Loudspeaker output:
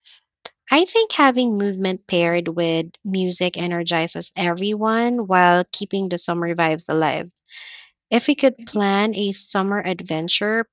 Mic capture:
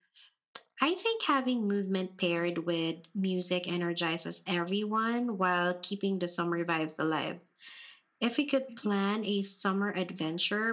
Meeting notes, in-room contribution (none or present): none